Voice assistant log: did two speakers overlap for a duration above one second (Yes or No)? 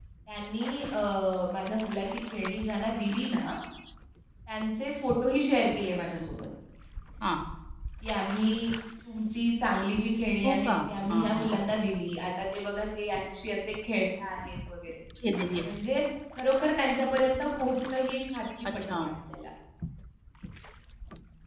No